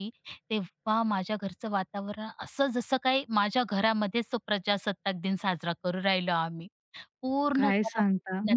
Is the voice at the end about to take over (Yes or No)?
Yes